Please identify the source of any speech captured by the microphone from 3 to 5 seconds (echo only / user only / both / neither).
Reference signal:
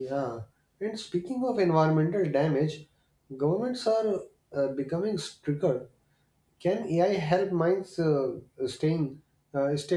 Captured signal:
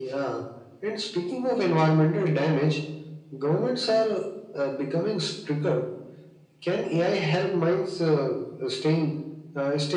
echo only